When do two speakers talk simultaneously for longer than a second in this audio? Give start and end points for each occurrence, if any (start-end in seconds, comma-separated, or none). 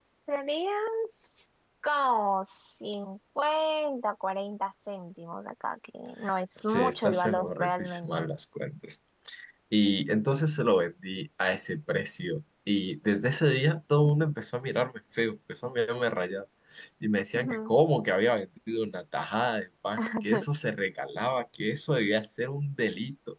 6.6-8.2